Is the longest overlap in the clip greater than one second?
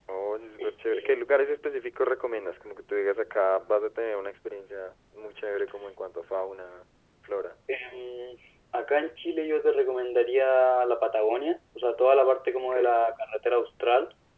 No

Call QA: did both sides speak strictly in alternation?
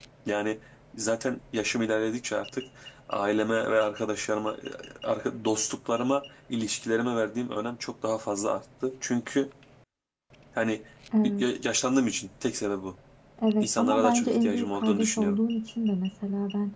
No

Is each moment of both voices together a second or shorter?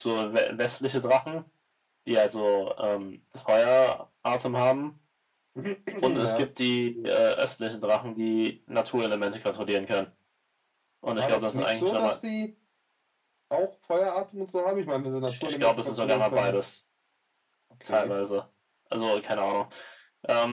No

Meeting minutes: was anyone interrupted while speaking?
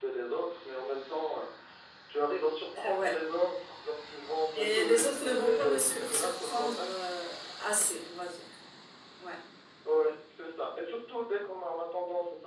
Yes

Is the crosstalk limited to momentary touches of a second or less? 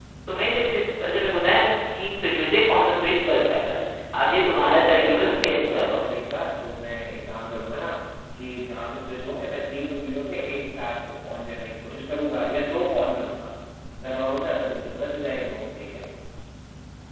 No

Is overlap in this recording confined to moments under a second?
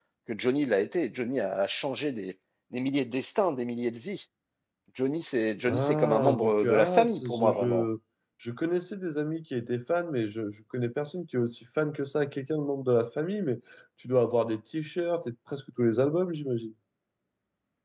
No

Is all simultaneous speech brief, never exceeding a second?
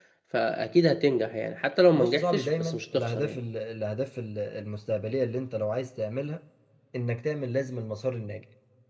No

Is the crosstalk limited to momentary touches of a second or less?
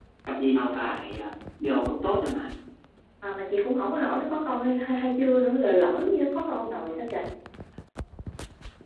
Yes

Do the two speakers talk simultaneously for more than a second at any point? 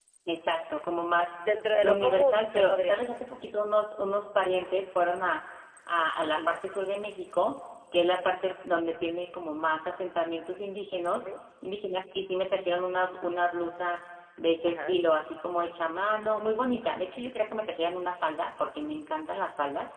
Yes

